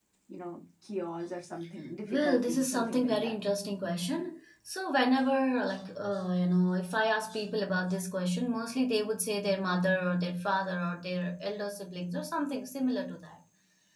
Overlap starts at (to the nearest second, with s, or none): 2 s